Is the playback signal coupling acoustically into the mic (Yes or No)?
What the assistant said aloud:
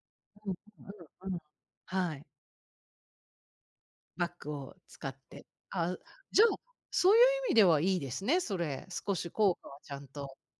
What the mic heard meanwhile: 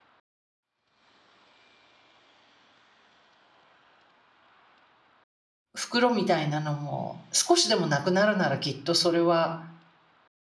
No